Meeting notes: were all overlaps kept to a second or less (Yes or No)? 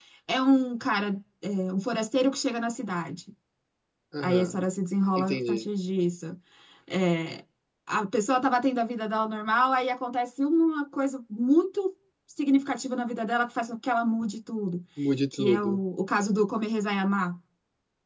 Yes